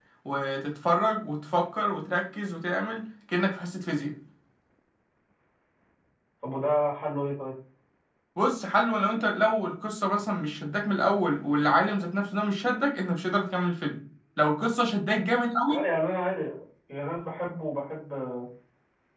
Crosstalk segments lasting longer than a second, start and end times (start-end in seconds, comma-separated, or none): none